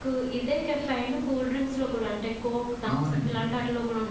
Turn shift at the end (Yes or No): No